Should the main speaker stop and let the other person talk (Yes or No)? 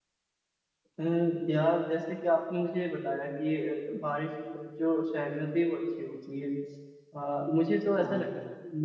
No